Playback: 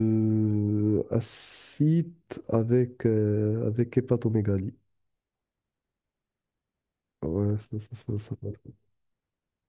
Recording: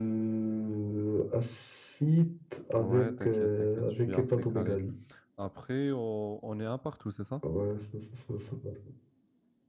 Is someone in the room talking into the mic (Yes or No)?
Yes